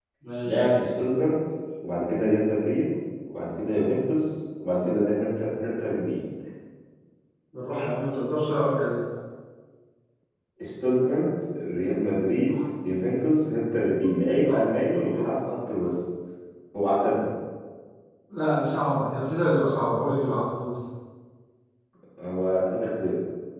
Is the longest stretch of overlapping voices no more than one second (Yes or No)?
Yes